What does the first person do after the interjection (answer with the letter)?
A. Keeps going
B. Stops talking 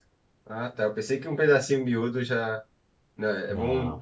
A